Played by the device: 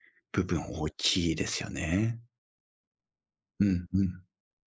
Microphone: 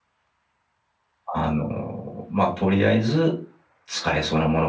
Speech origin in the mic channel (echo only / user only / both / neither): user only